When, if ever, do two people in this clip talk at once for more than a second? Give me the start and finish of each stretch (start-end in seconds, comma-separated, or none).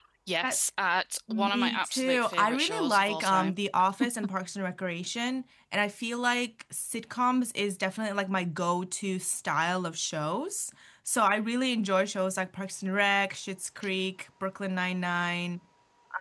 1.3-3.6